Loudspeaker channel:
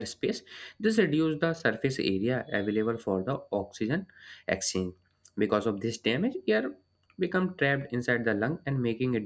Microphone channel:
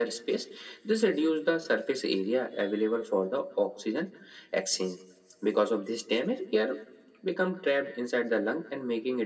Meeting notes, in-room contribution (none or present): none